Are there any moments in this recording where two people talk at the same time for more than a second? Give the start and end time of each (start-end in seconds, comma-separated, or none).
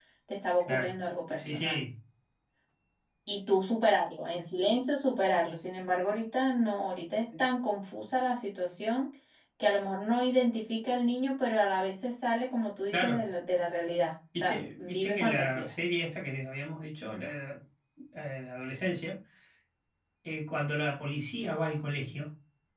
14.4-15.7